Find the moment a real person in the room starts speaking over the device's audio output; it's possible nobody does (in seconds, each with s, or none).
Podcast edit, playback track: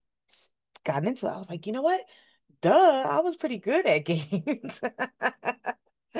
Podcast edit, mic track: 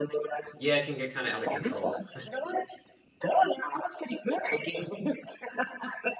0.6 s